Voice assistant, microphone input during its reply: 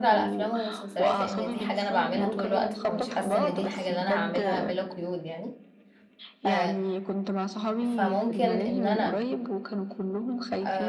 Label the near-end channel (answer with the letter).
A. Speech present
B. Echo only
A